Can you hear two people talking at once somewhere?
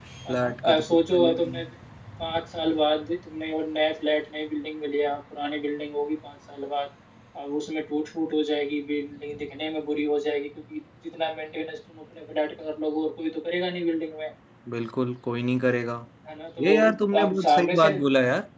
Yes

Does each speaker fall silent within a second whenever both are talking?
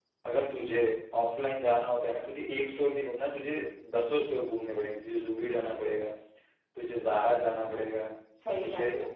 Yes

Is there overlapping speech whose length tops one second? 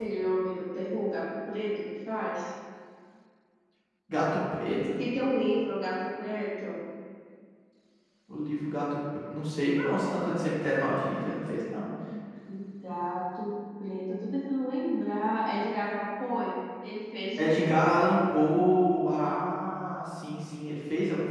No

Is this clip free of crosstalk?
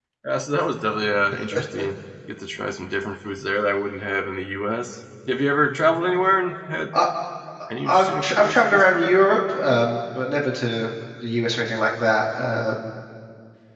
No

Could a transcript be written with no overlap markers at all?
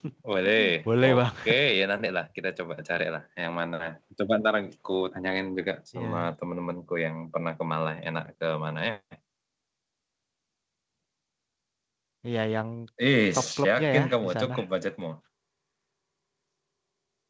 No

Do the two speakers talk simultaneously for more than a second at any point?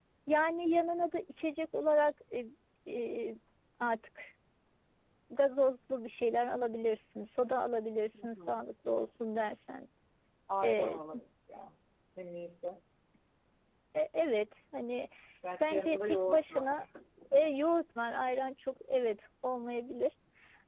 Yes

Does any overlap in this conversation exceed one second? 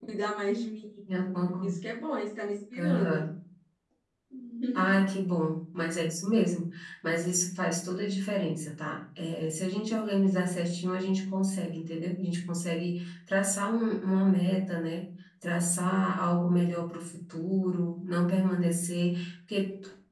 No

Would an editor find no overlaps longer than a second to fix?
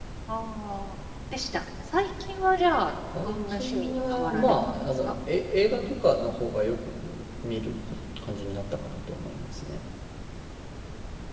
No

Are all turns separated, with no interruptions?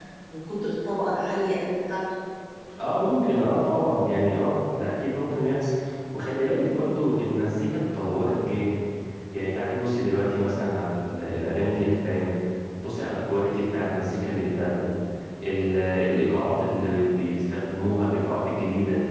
Yes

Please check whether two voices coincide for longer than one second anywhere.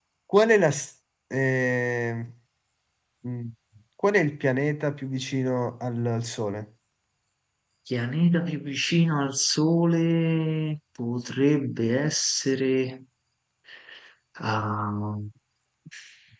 No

